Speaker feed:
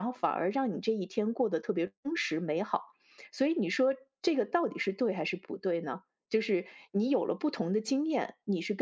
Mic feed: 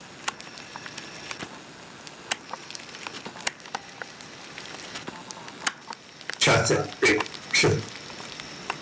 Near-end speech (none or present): present